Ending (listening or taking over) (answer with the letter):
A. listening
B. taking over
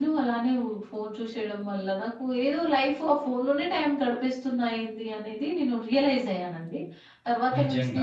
A